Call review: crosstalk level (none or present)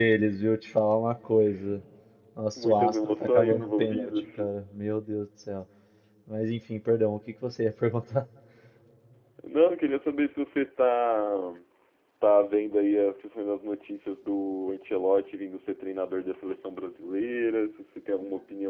present